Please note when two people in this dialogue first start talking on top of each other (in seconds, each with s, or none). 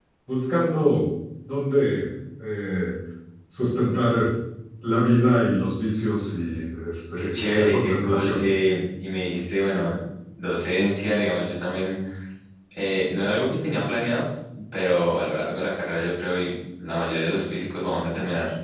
7.2 s